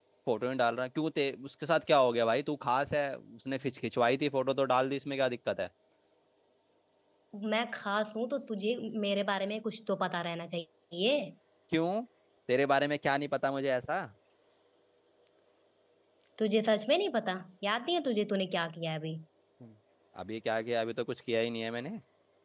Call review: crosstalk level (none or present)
none